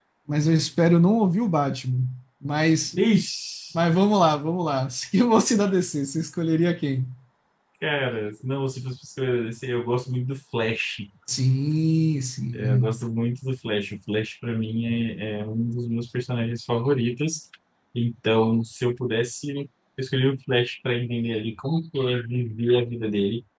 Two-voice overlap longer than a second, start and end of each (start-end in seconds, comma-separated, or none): none